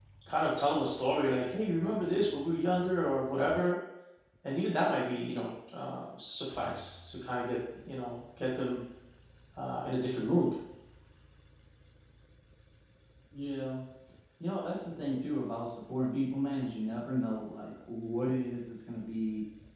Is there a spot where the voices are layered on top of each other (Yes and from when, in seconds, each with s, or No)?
No